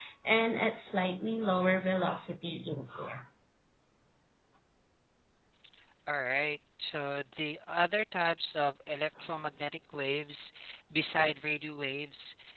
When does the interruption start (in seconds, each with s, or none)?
none